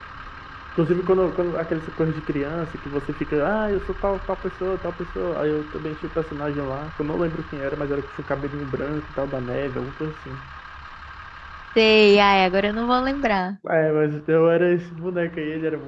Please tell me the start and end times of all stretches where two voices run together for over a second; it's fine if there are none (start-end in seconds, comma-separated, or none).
none